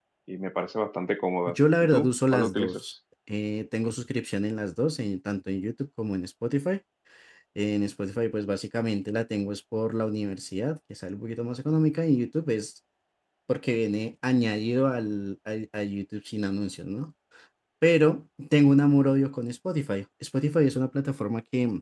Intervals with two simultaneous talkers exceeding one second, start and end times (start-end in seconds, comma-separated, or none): 1.5-2.9